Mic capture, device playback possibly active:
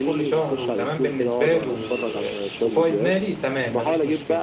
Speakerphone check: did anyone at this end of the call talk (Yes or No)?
Yes